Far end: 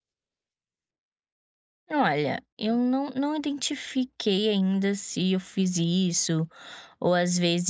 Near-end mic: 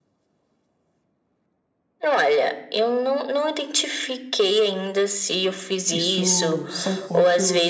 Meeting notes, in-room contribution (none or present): present